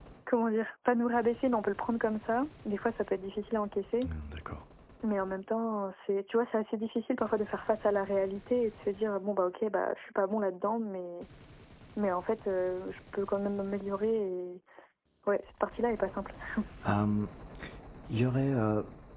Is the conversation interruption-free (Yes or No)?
Yes